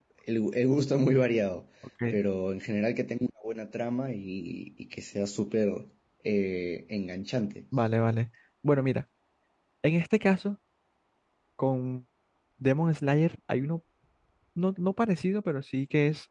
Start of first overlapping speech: none

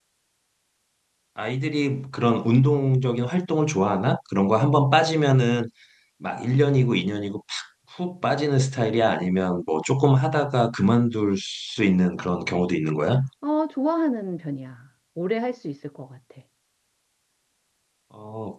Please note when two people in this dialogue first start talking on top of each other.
none

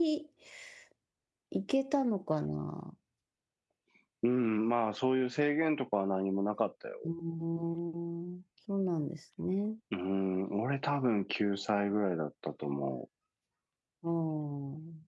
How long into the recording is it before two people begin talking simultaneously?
none

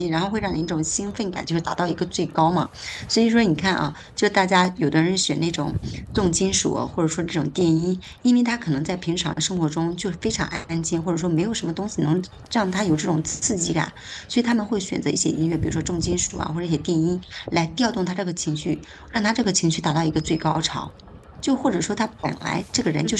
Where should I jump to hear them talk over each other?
none

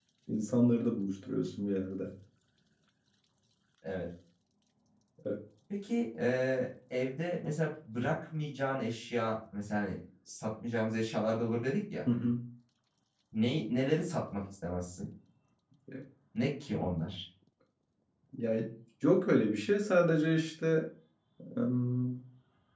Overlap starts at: none

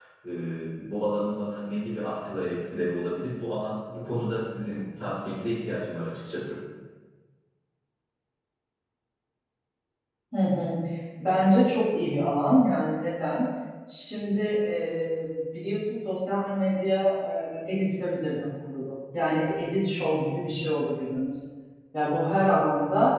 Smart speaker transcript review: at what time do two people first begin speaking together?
none

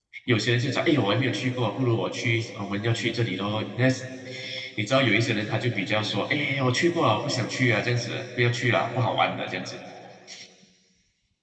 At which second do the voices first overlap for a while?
none

